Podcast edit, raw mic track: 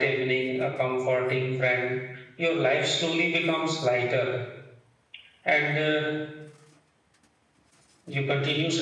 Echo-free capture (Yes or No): No